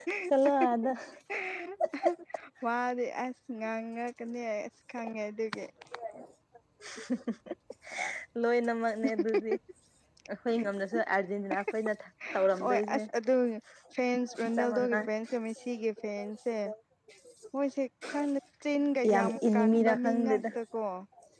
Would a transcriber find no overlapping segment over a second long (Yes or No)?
No